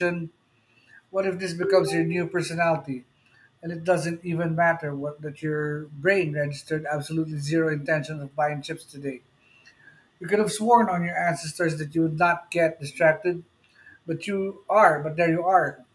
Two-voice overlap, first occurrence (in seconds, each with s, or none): none